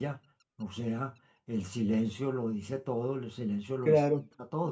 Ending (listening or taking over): taking over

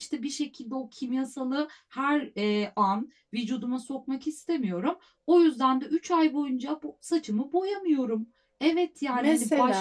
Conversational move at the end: listening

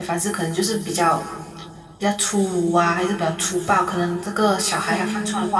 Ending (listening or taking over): listening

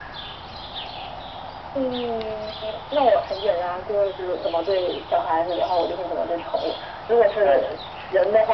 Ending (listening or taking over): listening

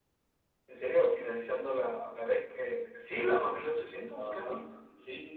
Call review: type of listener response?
taking over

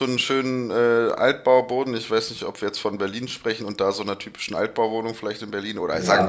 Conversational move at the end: taking over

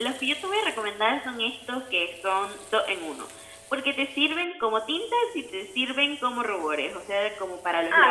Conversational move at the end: taking over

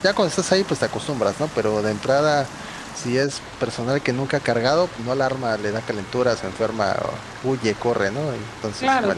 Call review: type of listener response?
taking over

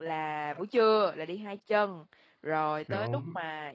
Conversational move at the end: listening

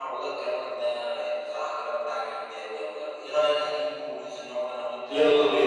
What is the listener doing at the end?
taking over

